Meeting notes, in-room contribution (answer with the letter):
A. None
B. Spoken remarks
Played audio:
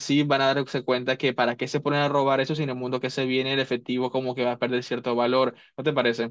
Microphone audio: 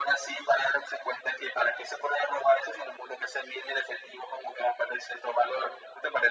A